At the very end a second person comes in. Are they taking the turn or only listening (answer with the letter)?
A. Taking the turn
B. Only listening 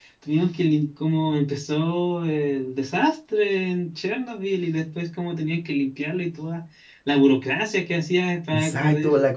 A